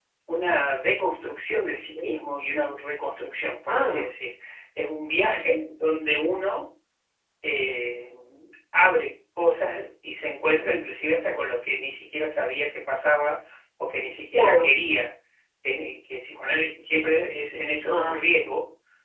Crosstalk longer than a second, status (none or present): none